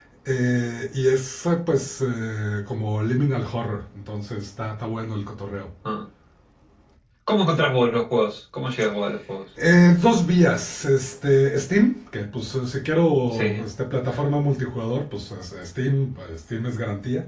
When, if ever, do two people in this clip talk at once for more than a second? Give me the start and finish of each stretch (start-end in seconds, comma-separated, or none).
none